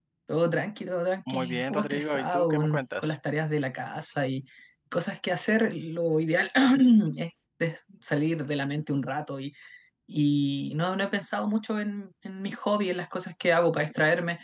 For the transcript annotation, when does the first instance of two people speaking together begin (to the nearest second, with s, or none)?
1 s